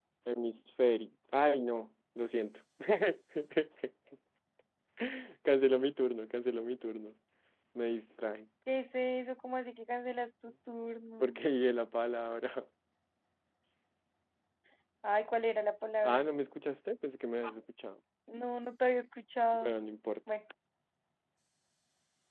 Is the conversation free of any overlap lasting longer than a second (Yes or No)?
Yes